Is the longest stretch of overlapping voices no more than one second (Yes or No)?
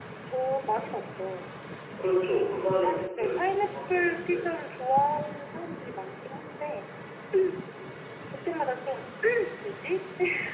No